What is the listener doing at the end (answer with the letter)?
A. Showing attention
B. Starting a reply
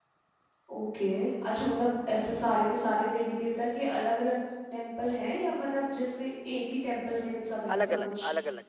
B